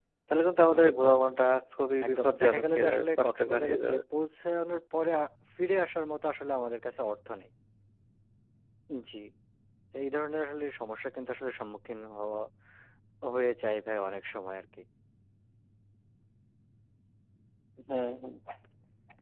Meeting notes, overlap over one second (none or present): present